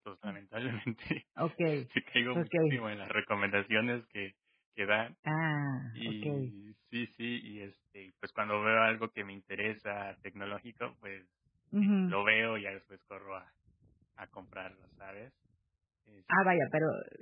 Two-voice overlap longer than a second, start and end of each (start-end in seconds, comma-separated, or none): none